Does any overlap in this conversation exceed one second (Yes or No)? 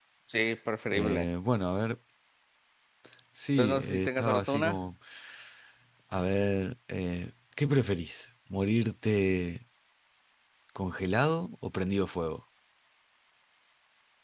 Yes